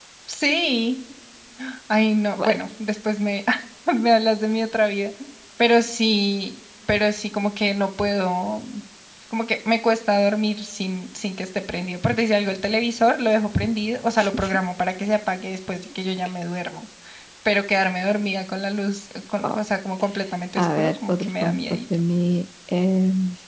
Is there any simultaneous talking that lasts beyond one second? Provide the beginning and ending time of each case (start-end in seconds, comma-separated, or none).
20.6-21.8